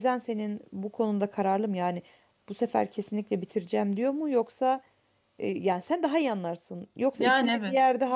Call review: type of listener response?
listening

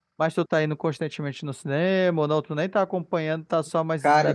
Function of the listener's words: taking over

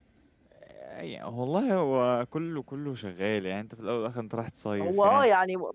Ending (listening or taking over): taking over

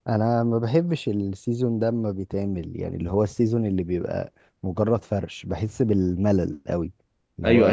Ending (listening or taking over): taking over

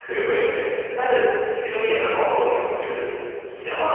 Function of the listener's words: taking over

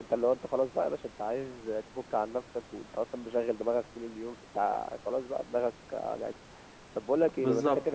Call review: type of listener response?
listening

